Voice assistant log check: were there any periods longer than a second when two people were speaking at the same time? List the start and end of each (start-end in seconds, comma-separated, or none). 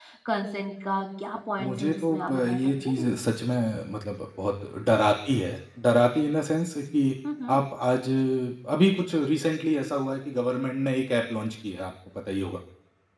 1.6-3.1